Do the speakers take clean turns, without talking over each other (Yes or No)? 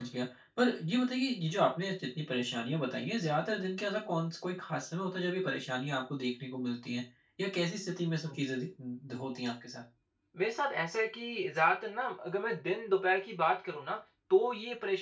Yes